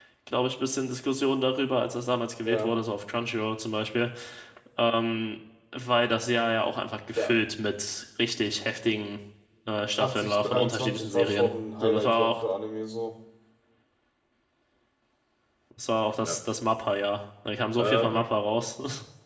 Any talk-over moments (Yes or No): Yes